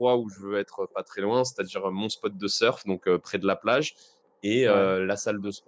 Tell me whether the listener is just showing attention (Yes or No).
Yes